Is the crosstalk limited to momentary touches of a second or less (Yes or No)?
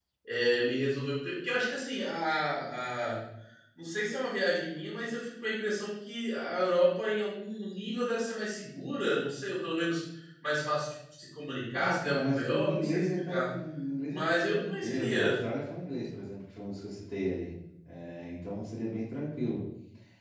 No